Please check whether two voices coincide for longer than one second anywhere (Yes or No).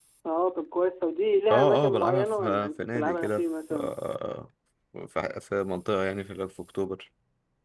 Yes